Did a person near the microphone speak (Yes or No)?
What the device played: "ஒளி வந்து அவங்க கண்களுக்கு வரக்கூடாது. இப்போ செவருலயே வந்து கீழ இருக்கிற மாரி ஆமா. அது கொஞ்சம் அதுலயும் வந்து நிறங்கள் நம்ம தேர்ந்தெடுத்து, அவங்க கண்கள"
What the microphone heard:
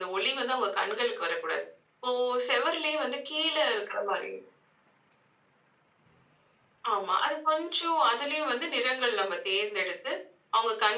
No